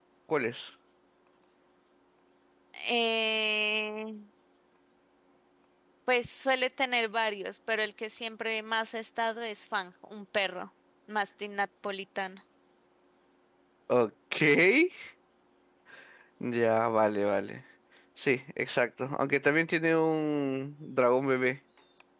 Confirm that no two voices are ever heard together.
Yes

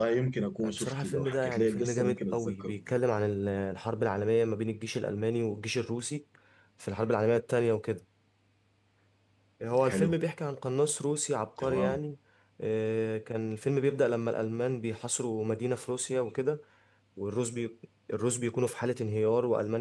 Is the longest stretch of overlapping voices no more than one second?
No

